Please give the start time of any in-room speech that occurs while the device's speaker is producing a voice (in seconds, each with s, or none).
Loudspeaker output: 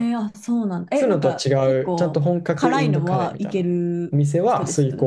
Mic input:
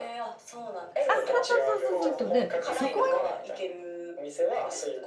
1.1 s